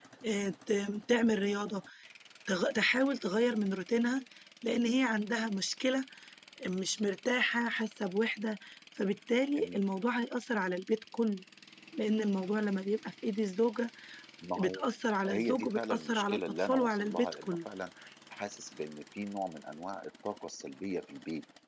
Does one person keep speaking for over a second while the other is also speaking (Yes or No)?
Yes